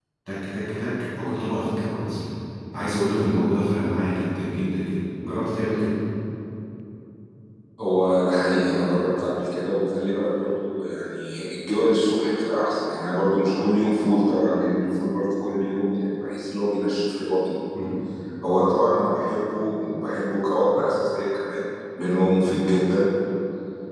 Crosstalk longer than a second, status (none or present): none